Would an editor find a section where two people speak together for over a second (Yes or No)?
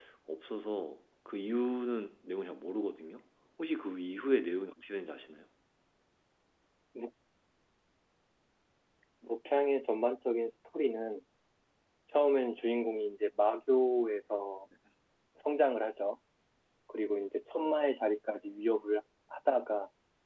No